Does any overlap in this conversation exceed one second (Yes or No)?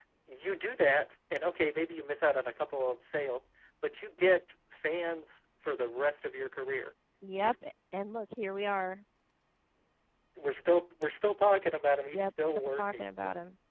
Yes